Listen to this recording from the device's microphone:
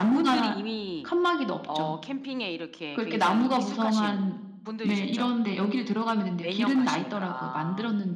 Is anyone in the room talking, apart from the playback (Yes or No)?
Yes